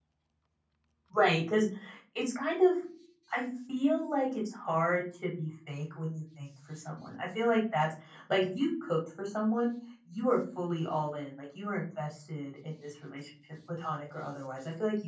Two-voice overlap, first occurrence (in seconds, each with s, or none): none